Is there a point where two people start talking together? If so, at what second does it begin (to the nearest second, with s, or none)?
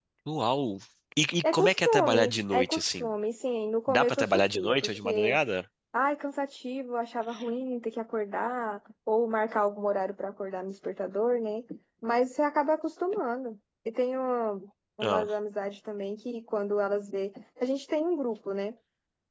1 s